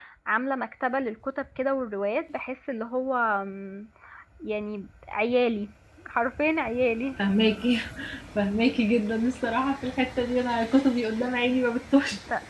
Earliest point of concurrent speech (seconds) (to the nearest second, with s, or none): none